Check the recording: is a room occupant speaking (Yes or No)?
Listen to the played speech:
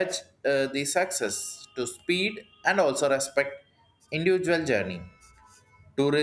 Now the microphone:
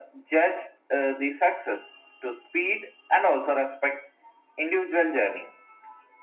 No